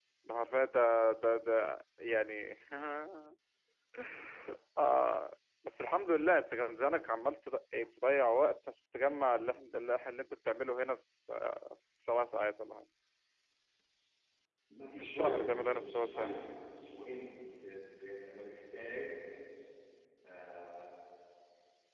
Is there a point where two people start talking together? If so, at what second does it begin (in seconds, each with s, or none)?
15.0 s